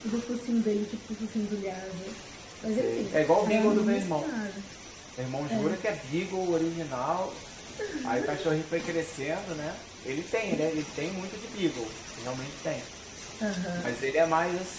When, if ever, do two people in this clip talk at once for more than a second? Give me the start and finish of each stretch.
2.7-4.2

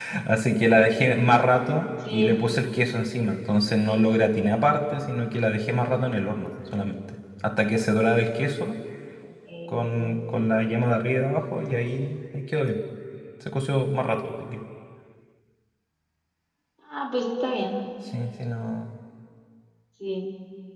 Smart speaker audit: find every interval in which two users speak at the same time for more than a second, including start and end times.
none

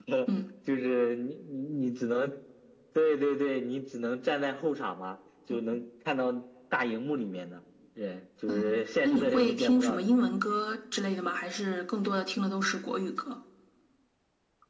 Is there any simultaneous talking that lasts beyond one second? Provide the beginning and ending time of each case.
8.5-10.1

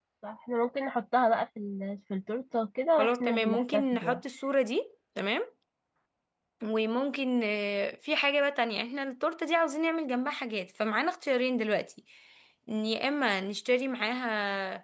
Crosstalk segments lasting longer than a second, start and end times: 2.9-4.2

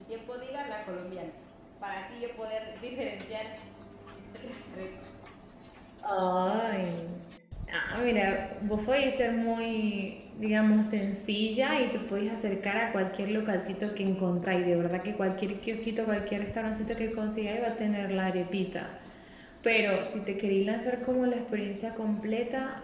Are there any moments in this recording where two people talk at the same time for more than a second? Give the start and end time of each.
none

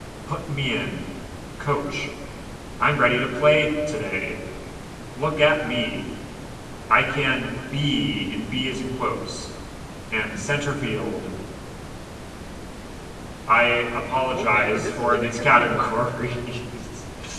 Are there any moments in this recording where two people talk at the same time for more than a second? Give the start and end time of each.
14.3-15.9

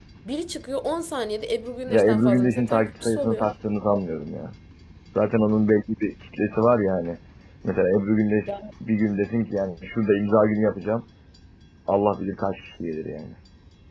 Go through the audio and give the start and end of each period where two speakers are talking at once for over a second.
1.9-3.5

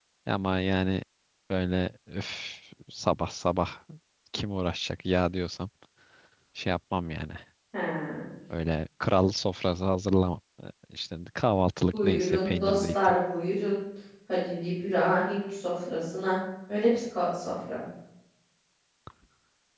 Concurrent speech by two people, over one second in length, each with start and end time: 11.9-13.2

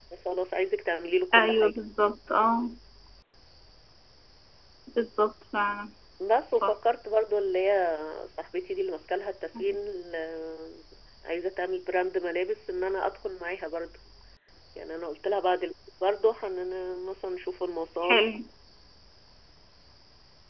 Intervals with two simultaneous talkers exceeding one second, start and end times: none

